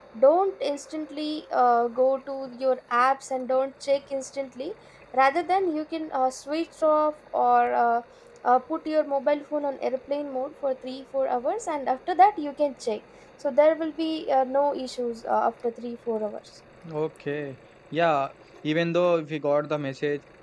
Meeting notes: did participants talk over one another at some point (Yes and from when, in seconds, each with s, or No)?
No